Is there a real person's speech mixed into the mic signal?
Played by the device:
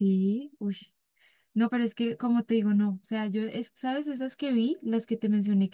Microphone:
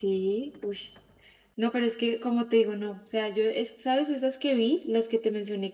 No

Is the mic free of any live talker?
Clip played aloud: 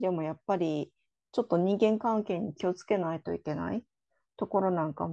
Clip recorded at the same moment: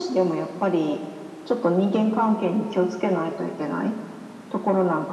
Yes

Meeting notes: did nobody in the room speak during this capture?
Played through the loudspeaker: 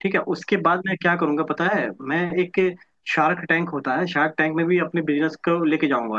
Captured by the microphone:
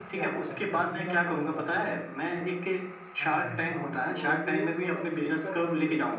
No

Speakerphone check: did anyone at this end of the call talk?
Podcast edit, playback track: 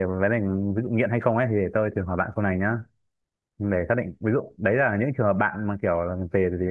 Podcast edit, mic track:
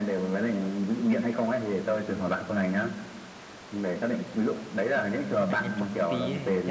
Yes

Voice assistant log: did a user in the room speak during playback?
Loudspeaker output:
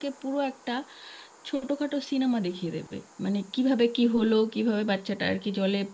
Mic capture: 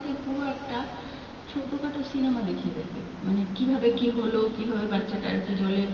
No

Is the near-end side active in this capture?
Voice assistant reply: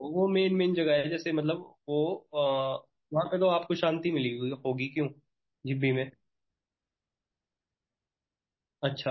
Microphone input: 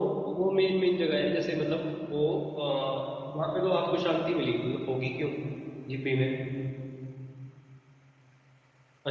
No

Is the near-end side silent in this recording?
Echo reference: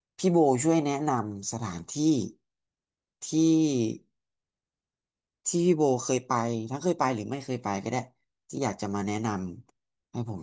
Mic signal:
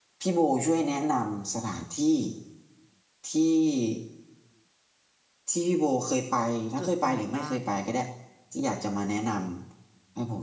No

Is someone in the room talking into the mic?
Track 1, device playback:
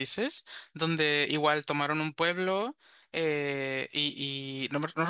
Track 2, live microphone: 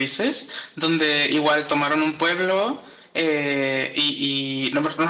No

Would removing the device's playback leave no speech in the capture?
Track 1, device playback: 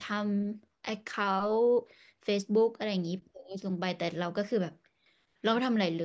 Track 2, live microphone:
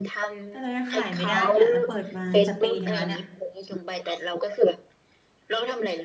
No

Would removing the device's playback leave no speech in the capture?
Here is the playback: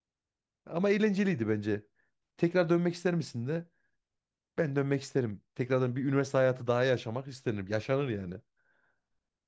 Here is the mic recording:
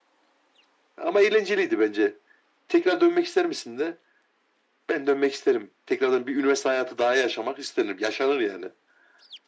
Yes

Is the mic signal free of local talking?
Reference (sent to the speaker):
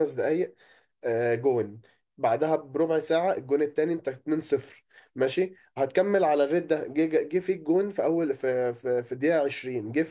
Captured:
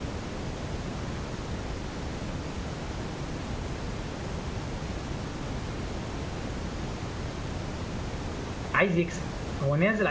No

